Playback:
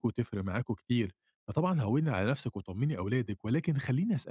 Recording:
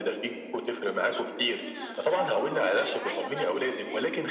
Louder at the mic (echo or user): echo